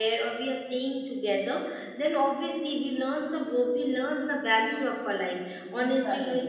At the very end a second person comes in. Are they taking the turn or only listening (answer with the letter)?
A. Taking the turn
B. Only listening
B